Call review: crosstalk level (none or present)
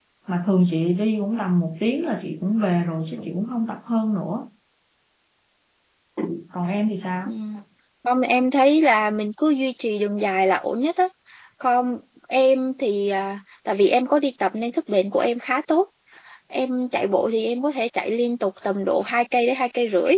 none